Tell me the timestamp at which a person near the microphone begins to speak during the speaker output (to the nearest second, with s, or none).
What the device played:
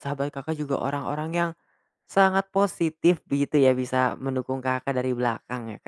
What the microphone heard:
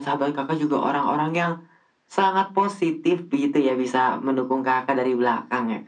none